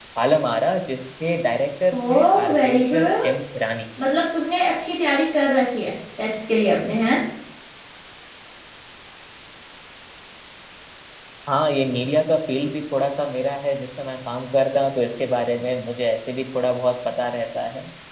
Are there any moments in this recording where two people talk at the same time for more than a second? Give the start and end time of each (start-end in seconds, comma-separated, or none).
1.9-3.4